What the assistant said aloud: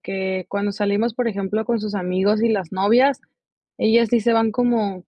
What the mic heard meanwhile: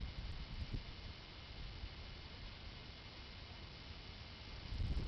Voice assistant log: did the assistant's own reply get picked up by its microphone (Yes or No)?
No